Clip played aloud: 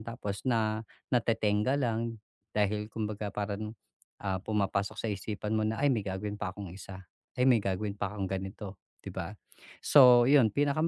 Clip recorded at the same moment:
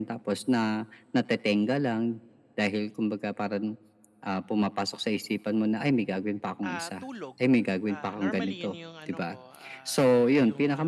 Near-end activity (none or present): present